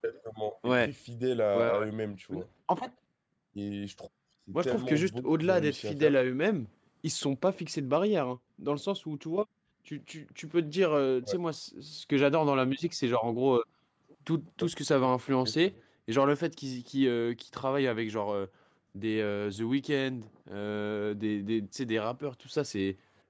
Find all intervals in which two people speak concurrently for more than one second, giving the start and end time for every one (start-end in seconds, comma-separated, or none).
4.5-6.2